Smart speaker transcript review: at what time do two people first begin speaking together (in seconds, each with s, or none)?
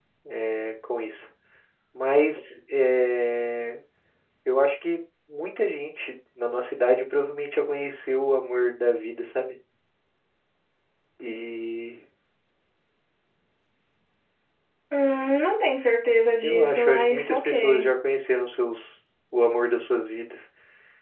16.4 s